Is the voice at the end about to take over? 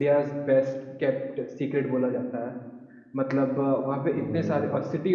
No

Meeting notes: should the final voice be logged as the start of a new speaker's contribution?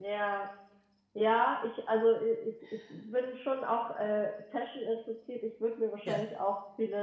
No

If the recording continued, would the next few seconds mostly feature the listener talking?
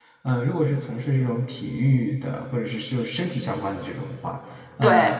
No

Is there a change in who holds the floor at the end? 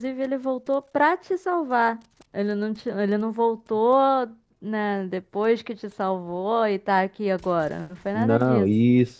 Yes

